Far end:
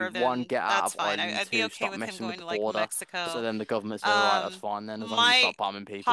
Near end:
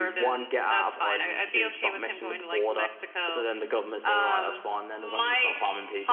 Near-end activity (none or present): none